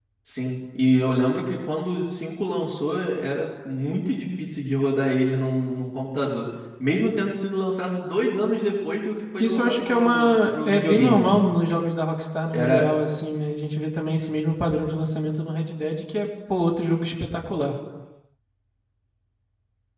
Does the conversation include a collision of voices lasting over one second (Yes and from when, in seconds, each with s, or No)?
Yes, from 9.4 s